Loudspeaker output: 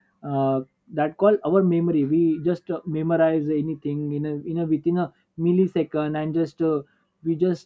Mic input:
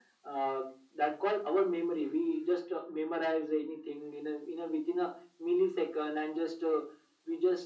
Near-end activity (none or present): none